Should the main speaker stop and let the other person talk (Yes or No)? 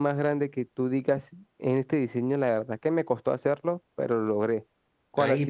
Yes